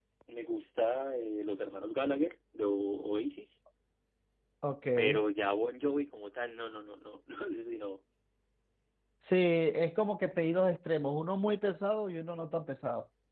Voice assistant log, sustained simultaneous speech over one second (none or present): none